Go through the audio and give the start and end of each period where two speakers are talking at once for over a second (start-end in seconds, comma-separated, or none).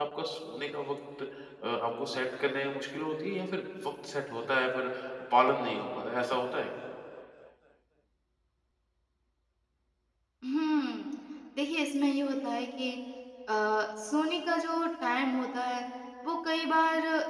none